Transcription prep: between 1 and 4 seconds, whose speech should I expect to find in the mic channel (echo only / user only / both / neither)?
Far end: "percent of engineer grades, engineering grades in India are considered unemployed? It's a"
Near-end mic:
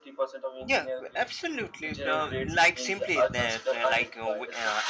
both